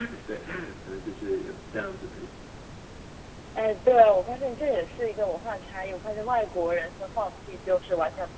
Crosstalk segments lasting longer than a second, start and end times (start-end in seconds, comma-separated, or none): none